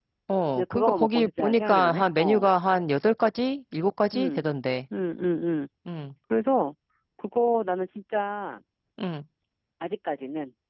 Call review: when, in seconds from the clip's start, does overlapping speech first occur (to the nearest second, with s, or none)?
1 s